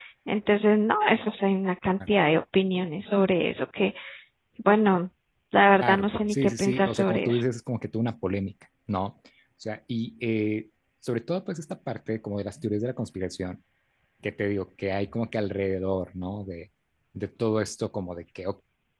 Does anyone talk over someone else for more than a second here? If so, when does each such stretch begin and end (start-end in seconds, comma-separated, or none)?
5.8-7.4